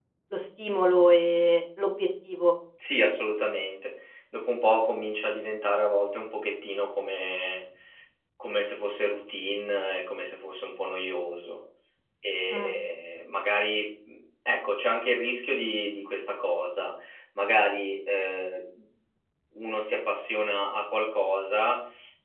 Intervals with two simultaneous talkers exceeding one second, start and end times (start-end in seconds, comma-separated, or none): none